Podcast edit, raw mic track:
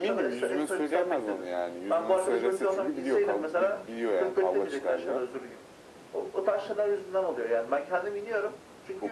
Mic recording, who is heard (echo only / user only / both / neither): echo only